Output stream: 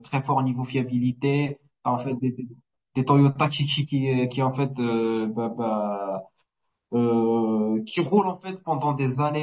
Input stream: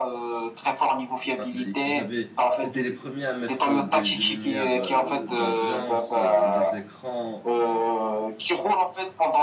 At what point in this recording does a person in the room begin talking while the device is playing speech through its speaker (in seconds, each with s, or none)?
1.4 s